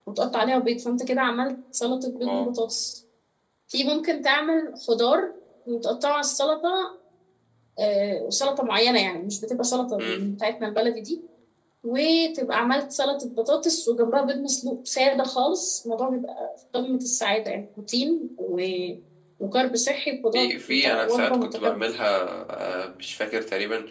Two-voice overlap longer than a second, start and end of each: 20.3-21.8

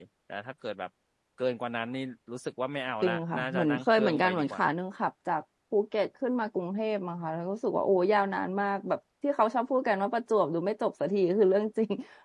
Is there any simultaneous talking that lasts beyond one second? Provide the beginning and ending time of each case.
3.0-4.6

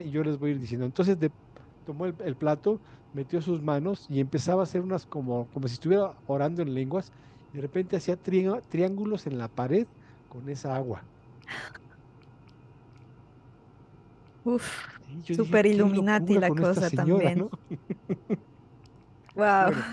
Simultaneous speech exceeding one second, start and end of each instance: 15.3-17.4

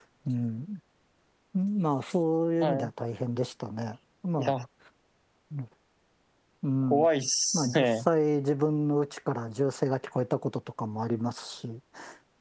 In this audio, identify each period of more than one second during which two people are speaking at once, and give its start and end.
none

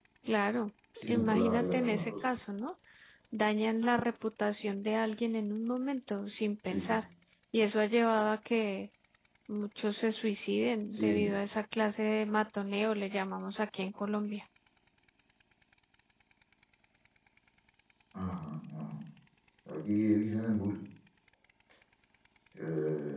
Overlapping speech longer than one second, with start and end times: 1.0-2.3

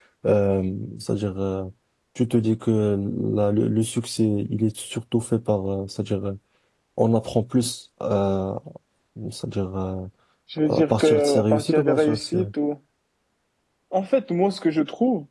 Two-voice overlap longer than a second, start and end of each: 10.8-12.4

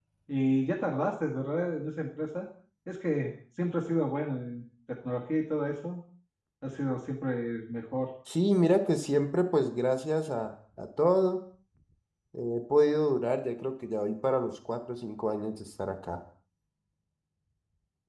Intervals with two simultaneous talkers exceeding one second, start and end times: none

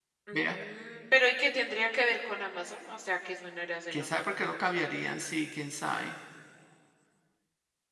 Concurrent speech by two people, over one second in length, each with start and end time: none

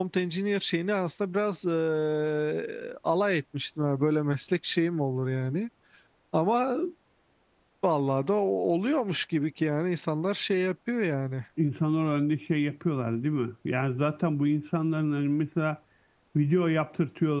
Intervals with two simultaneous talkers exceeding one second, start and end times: none

